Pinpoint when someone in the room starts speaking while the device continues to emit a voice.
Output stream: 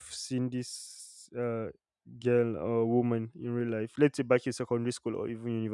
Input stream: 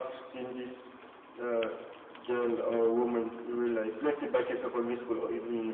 none

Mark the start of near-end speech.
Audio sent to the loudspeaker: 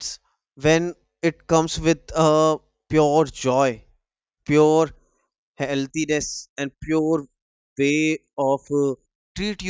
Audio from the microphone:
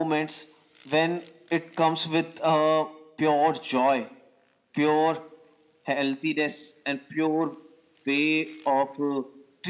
none

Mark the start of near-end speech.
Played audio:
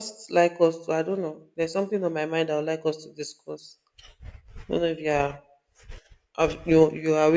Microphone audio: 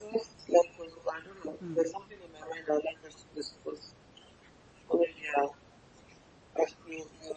2 s

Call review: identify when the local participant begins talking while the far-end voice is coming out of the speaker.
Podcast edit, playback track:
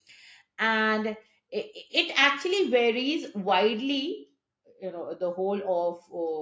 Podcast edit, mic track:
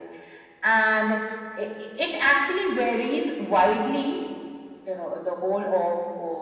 none

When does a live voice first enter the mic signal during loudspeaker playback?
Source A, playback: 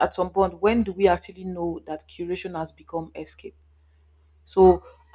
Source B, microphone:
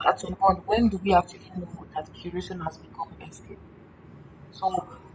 none

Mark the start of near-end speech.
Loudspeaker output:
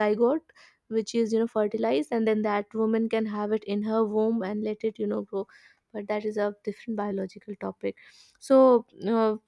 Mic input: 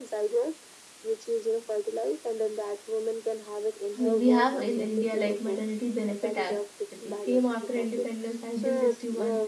4 s

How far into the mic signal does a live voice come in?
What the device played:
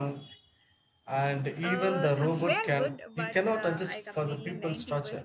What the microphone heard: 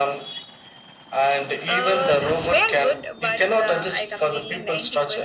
none

